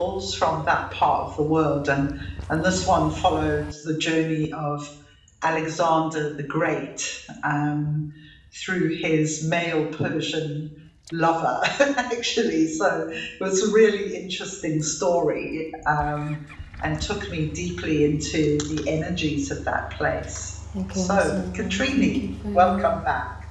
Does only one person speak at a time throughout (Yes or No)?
No